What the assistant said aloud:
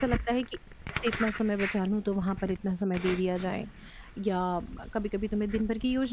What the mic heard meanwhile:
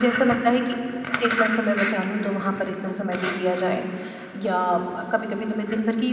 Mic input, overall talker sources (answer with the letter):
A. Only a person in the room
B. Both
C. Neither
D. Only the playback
D